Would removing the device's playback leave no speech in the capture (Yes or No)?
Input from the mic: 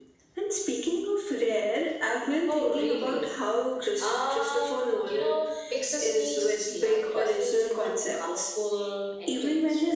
Yes